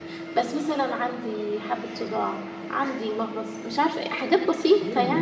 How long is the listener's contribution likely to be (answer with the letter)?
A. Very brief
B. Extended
B